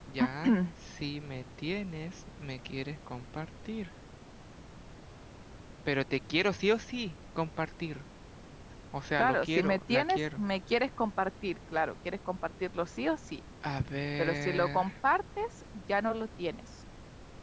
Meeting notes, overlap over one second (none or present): present